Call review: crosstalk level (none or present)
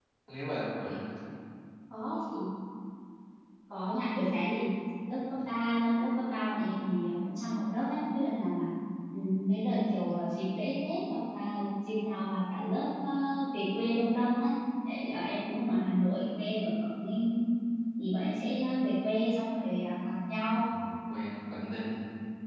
none